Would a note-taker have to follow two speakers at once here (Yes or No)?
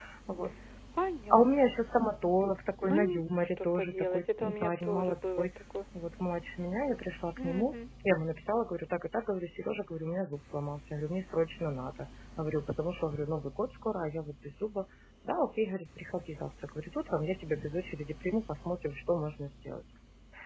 Yes